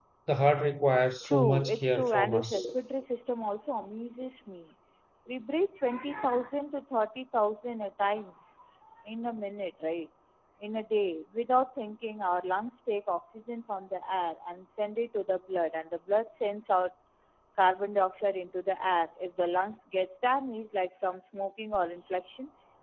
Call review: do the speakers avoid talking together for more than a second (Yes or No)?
No